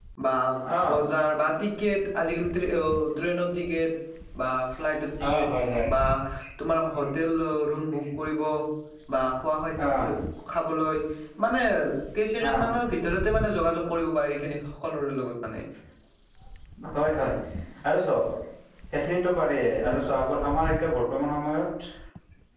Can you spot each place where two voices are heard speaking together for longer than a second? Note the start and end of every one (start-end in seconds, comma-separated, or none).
none